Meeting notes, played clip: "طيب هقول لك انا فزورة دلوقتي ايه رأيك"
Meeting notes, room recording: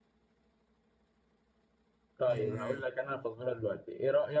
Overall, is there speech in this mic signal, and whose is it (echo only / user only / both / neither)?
both